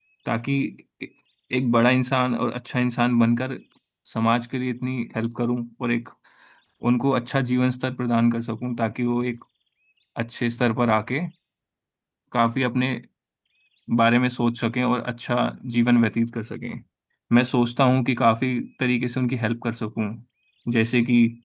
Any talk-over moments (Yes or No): No